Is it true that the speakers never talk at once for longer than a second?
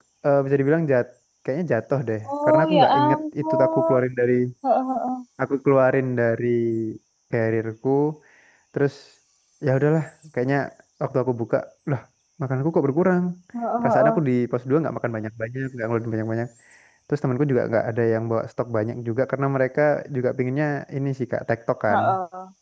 No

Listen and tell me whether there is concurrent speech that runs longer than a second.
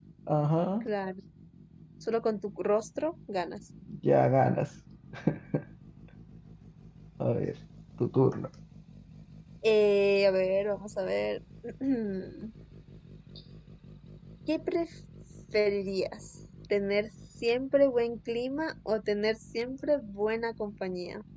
No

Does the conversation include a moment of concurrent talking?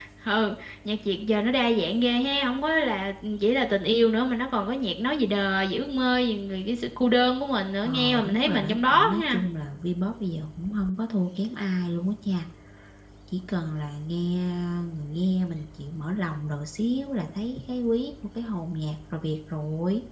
Yes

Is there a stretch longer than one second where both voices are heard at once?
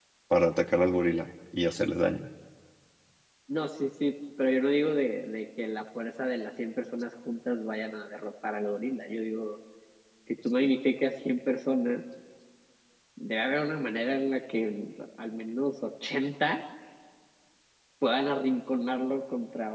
No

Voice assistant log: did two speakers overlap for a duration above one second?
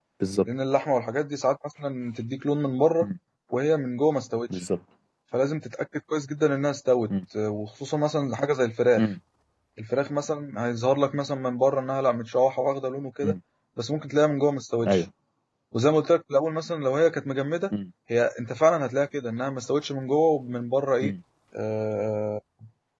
No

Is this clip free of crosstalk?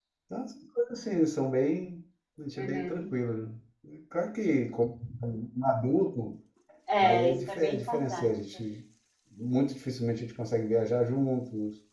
No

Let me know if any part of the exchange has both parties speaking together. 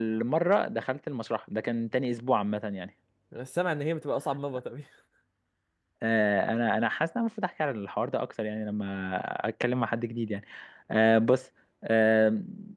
No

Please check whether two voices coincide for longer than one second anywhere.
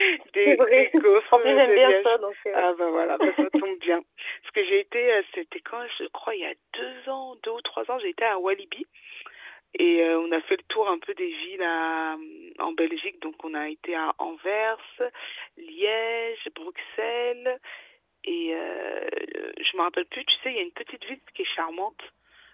Yes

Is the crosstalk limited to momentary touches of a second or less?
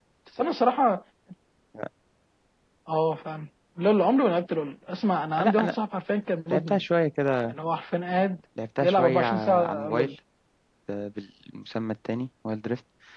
No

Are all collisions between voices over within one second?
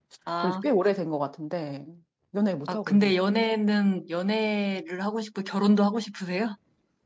Yes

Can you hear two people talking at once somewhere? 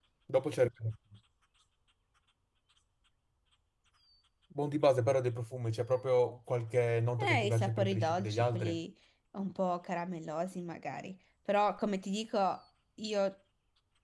Yes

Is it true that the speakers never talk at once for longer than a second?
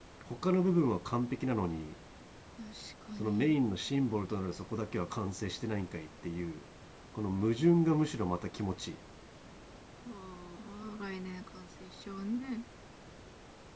Yes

